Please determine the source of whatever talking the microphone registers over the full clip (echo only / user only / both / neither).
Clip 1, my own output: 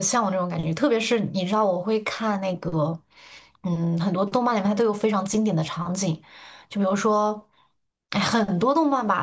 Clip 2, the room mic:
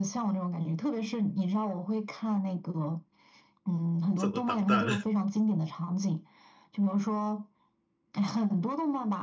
both